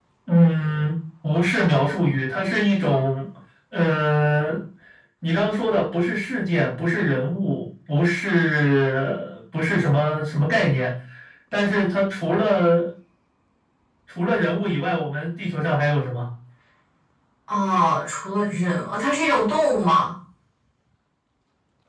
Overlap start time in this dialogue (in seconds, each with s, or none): none